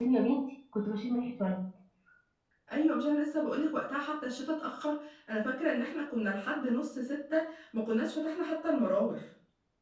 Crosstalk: none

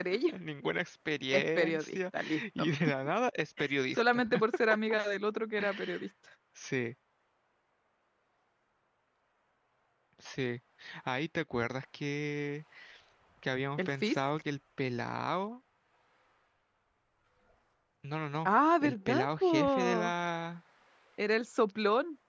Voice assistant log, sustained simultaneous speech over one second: present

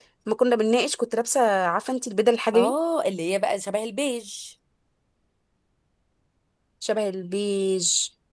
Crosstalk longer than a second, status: none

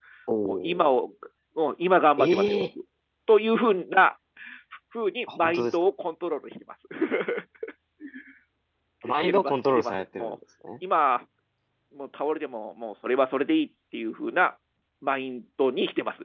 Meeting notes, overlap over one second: present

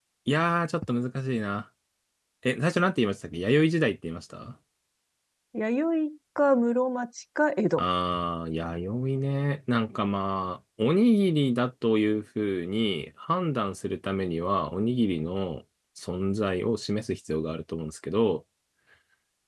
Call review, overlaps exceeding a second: none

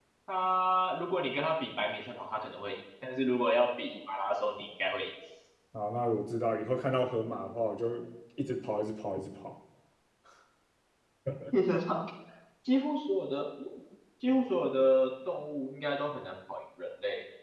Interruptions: none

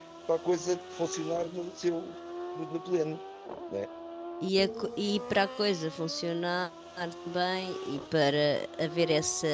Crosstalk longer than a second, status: none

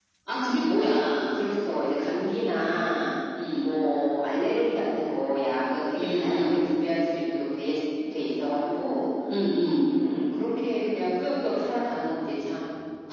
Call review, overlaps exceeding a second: none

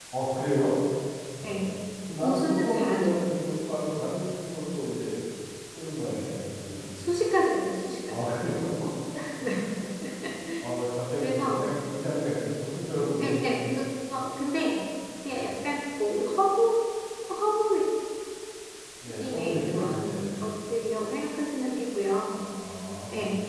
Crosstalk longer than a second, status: present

